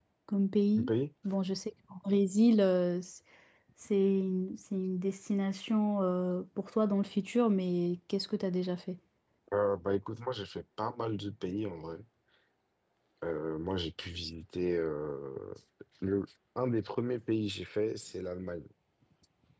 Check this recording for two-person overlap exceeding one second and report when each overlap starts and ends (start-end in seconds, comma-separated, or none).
none